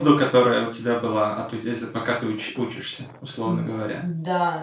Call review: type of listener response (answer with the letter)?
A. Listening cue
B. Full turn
B